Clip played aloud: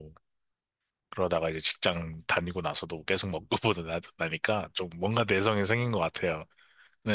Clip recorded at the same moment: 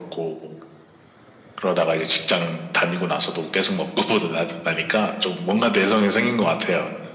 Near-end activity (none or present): none